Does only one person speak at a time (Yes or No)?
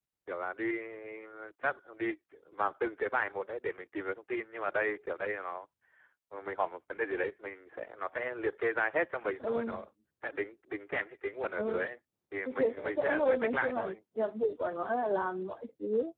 No